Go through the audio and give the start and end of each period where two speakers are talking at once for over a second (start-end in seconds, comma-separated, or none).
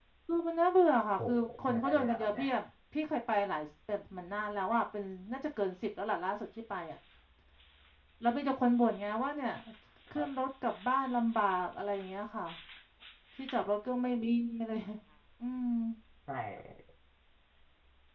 1.2-2.5